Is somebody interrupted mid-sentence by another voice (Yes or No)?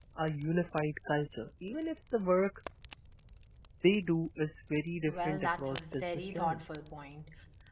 Yes